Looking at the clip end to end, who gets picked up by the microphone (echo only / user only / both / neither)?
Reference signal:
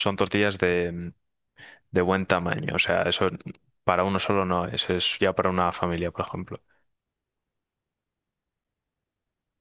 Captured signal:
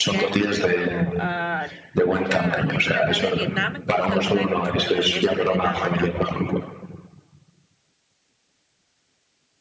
both